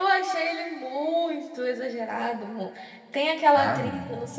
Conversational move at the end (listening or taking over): listening